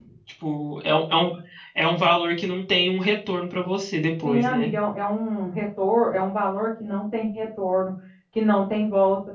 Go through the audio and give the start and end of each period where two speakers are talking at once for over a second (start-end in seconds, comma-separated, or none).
none